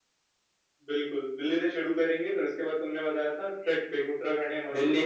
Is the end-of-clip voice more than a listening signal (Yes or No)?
Yes